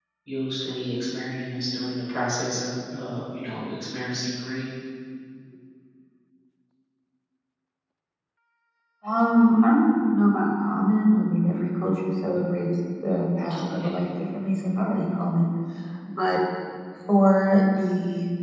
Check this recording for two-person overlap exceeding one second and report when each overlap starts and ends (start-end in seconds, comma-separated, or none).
none